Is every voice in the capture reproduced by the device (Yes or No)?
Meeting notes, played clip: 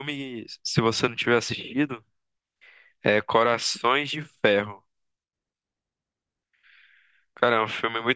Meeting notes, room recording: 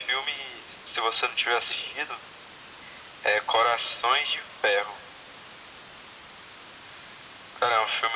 Yes